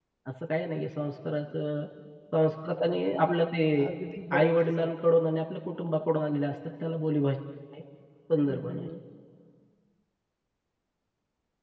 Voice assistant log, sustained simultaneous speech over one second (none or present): none